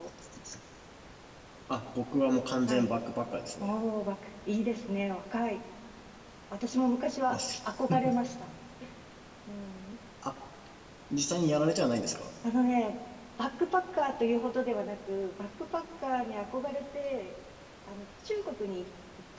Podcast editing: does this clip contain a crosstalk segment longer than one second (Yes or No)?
No